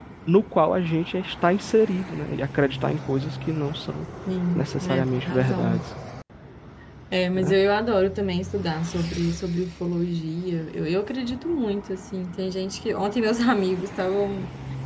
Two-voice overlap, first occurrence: 4.6 s

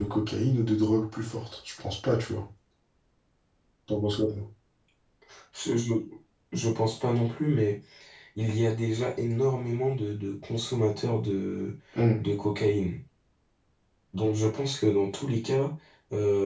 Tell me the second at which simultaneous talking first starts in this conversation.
none

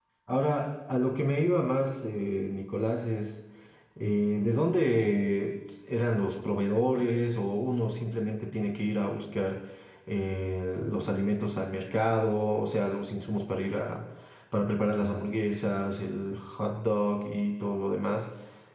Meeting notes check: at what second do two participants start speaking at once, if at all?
none

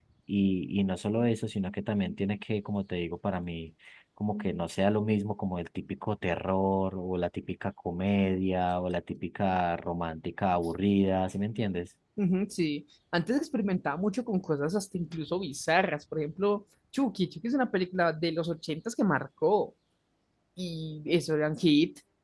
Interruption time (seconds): none

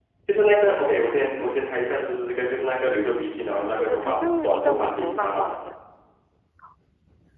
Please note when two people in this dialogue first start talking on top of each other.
3.8 s

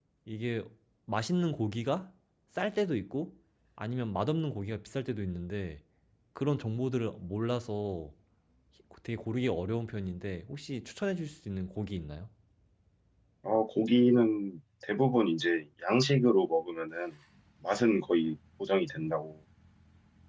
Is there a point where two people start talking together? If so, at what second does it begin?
none

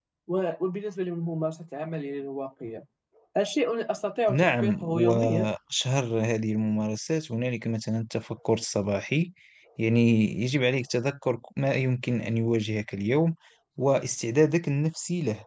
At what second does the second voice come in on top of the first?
4.3 s

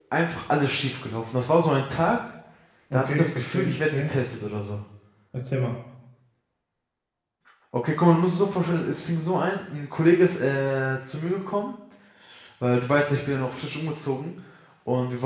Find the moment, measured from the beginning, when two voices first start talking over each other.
2.9 s

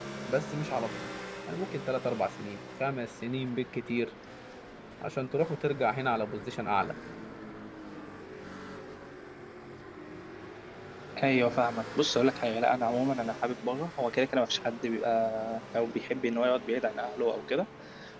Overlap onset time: none

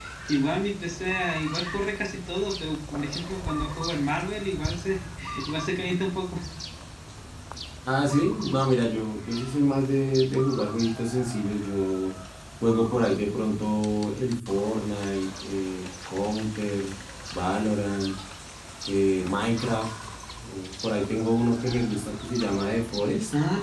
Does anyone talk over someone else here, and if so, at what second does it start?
none

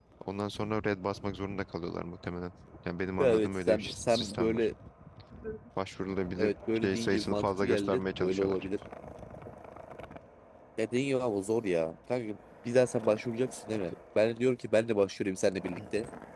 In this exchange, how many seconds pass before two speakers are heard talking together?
3.2 s

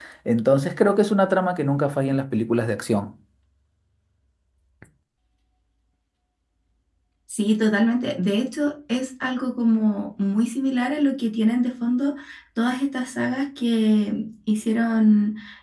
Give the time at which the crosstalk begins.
none

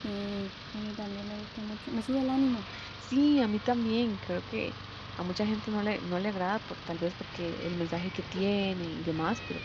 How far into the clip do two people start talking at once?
none

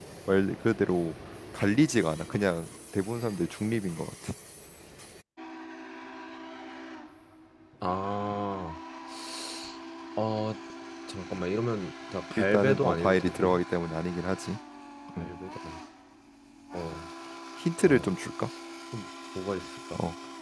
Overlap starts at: 12.4 s

